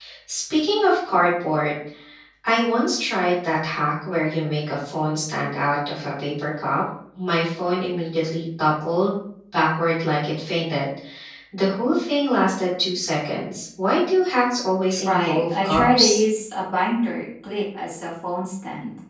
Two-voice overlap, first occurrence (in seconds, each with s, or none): 14.9 s